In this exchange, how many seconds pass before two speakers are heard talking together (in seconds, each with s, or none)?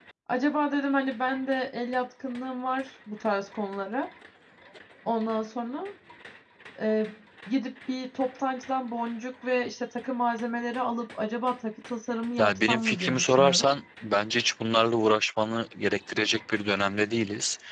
12.4 s